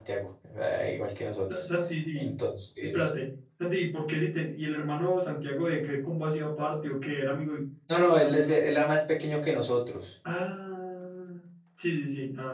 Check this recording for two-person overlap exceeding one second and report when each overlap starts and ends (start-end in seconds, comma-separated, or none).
none